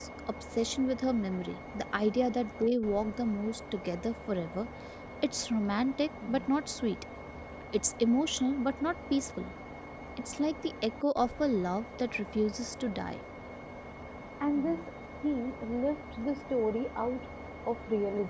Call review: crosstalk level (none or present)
none